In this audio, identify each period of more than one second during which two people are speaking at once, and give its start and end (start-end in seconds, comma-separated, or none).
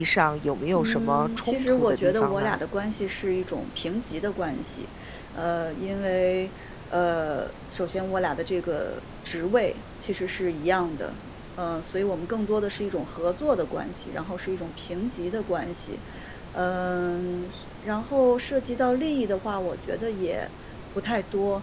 0.8-2.6